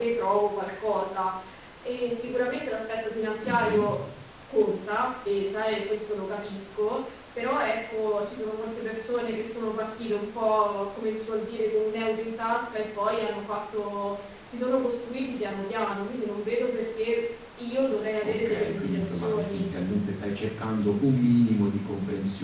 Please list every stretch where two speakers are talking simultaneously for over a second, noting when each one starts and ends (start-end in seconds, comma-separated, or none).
18.2-19.7